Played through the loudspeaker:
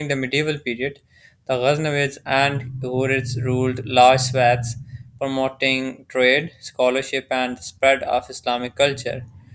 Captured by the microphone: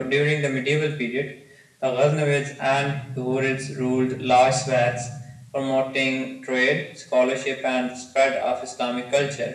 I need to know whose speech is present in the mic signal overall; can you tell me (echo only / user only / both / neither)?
echo only